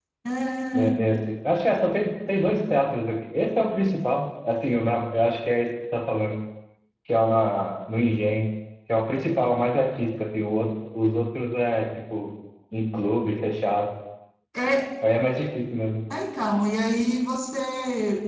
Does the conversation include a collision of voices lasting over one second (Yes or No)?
No